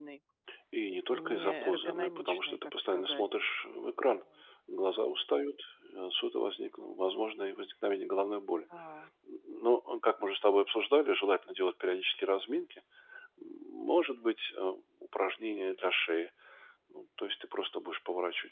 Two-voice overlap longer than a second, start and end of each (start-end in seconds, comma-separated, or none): 1.1-3.3